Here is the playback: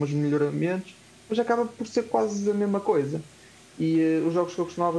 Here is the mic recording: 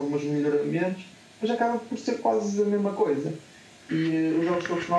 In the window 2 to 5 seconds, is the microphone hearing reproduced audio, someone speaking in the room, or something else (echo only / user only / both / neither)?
echo only